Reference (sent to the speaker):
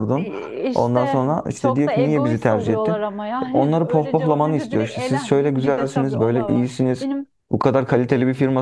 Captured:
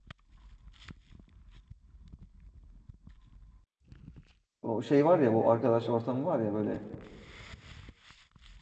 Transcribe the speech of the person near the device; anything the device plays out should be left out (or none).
o şey var ya bu arkadaş ortamı var ya böyle